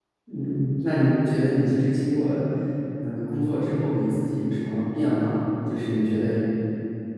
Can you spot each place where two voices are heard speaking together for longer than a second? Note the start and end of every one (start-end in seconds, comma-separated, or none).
none